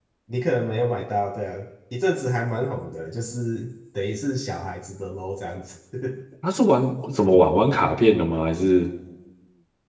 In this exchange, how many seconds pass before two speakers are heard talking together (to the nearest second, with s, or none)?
none